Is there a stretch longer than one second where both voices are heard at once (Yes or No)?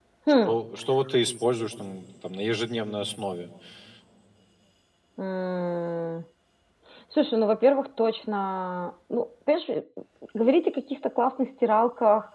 No